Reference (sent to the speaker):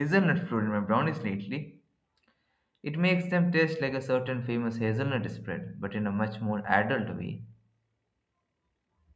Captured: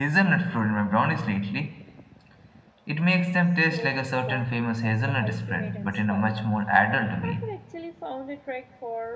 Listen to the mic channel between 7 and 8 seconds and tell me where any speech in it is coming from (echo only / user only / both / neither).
both